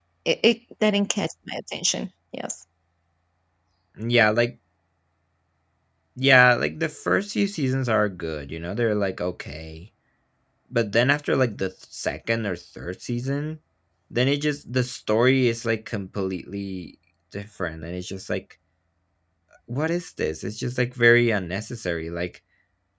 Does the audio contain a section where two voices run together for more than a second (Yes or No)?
No